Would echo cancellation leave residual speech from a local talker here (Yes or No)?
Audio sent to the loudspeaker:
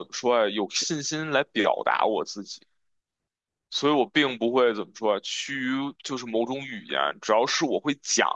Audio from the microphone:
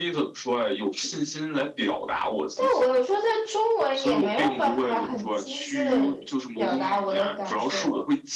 Yes